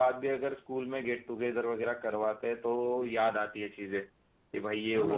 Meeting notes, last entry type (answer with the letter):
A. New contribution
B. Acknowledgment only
A